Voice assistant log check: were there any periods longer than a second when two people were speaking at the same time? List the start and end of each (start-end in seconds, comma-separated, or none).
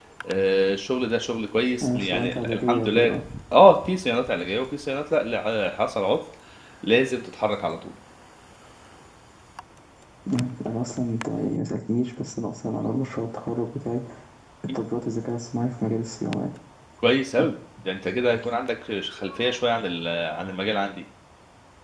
1.8-3.1